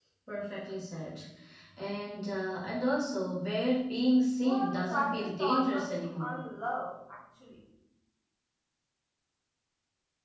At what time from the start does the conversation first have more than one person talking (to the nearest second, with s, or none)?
4 s